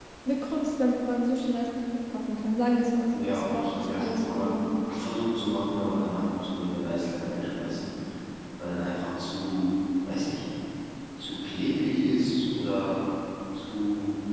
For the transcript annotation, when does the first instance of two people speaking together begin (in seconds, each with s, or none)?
3.1 s